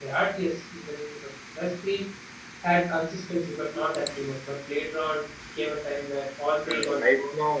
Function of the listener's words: taking over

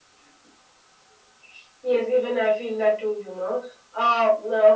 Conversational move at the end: listening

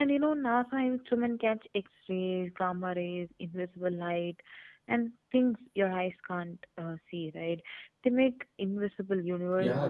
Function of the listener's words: taking over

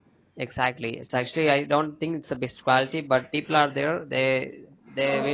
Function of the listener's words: listening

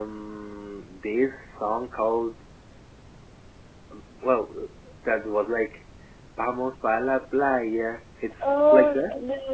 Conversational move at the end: taking over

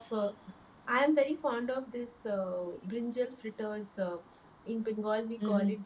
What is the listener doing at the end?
listening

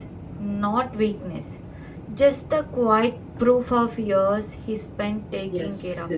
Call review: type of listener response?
taking over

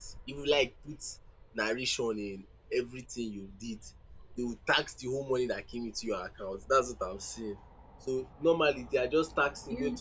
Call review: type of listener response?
listening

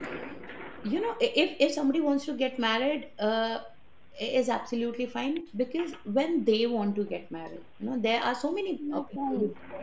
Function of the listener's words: listening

